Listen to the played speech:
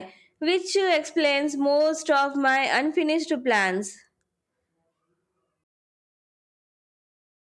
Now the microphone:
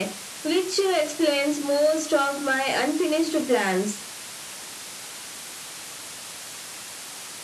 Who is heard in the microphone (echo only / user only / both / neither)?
echo only